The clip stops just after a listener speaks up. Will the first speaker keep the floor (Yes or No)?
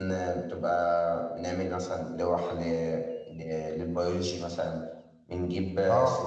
Yes